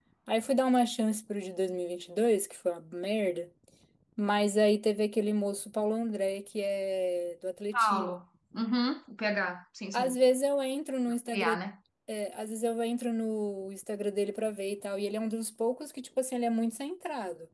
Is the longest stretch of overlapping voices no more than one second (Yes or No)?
Yes